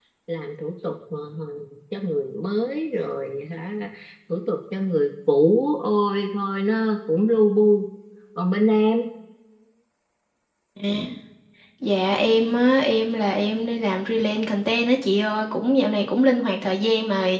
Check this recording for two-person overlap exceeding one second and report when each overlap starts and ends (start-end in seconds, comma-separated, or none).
none